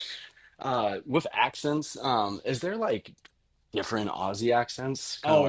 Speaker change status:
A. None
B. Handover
B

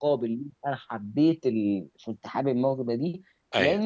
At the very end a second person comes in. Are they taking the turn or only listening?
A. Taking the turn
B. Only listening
B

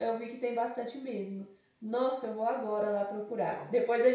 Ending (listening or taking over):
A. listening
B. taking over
A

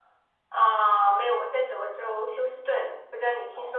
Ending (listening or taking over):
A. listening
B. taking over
B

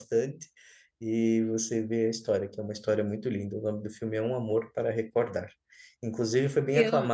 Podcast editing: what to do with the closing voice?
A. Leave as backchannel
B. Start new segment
A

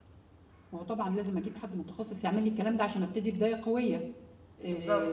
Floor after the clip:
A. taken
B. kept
B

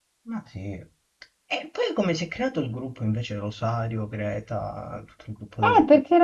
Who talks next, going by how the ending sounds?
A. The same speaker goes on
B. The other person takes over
B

